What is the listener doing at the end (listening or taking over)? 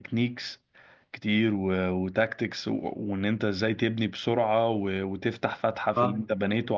listening